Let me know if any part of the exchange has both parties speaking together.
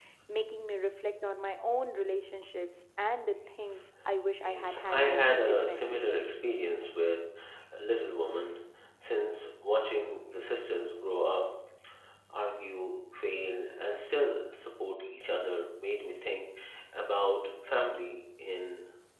Yes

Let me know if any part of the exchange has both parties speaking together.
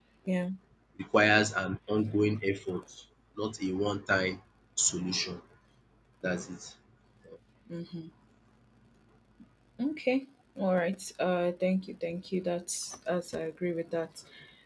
No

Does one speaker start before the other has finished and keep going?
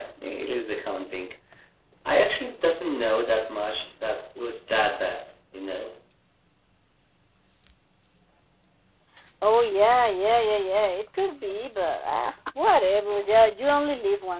No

